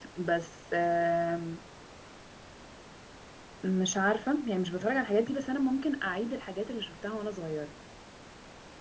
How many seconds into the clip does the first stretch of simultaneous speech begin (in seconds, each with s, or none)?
none